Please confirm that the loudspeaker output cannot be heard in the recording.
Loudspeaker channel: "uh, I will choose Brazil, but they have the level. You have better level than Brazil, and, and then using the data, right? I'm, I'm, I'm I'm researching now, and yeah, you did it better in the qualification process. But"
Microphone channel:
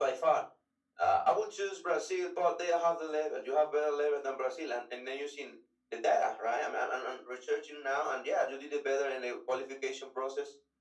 No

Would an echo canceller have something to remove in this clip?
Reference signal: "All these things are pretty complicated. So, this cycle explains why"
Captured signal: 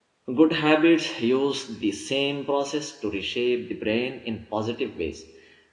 No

